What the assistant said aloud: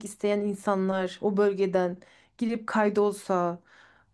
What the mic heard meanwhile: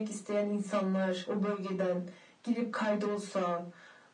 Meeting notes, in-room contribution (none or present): none